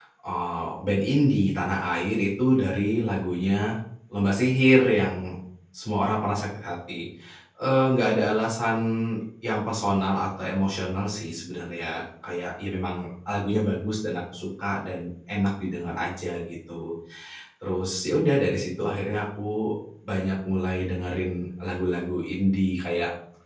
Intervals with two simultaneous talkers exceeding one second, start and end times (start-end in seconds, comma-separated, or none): none